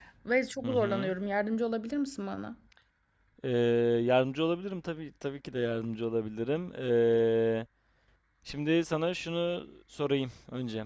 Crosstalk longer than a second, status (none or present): none